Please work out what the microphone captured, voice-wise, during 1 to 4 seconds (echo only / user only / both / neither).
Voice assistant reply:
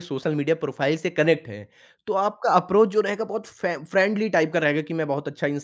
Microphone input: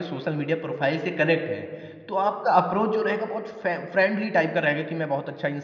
echo only